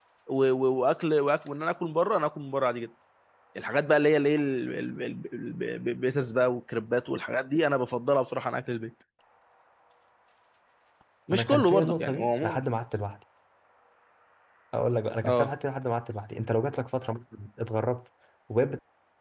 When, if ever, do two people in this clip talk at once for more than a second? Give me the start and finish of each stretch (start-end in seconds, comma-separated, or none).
11.3-12.6